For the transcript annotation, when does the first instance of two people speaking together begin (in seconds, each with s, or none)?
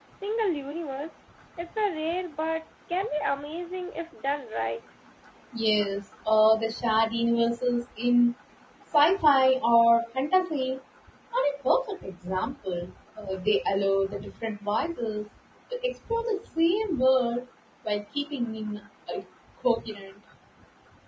none